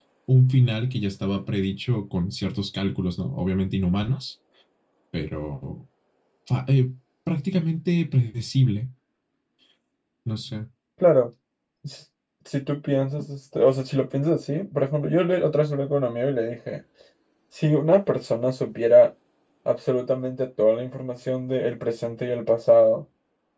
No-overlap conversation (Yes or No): Yes